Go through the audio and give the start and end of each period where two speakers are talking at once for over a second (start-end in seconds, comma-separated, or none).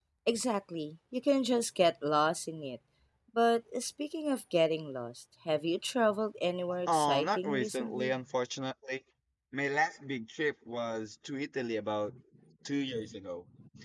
6.9-8.2